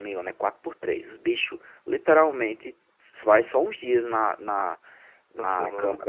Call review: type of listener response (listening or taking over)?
listening